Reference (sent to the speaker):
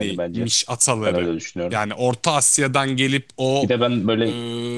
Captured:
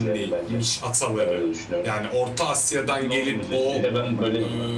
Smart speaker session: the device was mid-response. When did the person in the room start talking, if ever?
3 s

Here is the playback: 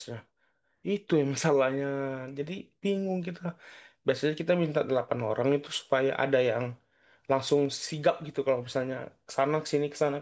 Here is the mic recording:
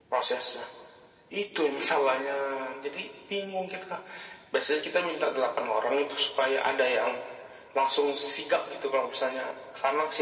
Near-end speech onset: none

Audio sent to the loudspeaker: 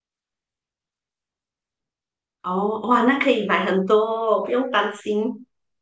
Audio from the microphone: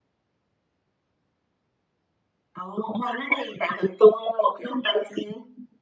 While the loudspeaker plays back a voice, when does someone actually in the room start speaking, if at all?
none

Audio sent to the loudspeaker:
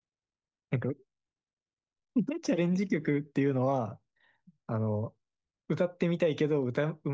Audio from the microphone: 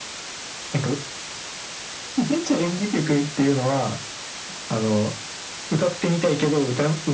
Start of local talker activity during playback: none

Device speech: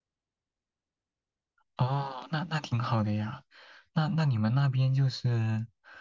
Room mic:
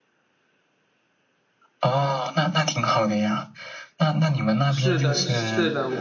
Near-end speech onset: 5 s

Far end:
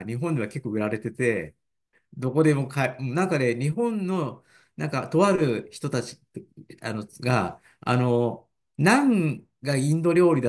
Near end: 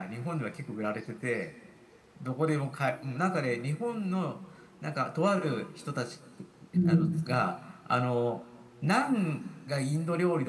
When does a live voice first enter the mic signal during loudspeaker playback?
7 s

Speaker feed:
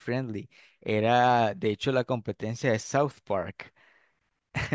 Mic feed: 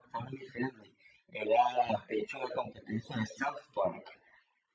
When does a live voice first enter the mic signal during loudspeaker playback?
none

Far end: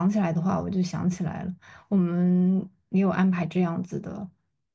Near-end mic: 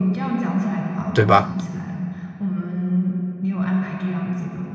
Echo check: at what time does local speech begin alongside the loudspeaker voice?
1 s

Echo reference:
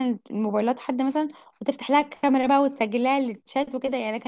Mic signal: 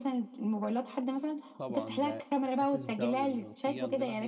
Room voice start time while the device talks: 2 s

